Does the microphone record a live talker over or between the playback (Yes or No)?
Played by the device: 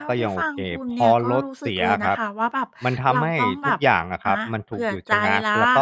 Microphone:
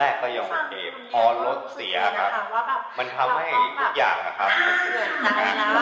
Yes